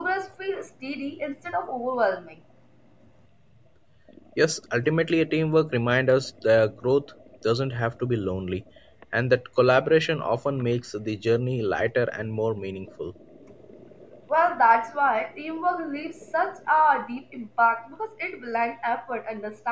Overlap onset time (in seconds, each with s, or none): none